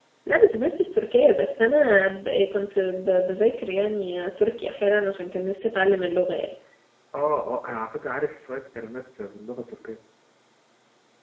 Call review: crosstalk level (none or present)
none